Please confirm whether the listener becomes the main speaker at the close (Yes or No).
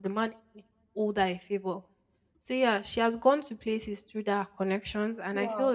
No